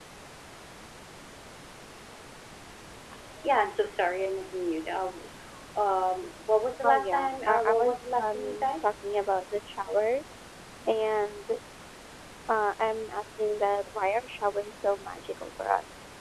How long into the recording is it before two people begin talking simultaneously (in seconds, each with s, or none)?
6.8 s